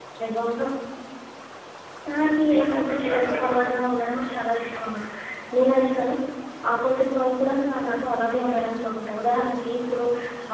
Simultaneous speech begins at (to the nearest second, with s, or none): 2 s